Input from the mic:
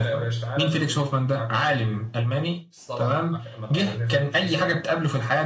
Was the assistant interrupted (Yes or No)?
Yes